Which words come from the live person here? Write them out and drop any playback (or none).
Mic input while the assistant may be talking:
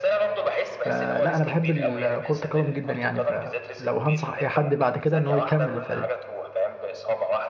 فلا انا بحب ال- كرة القدم جدا يعني فلو هنصح اي حد بعد كده ان هو يكمل ف